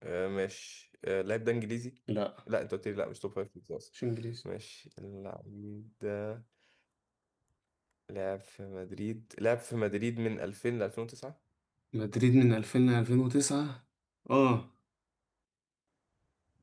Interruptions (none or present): none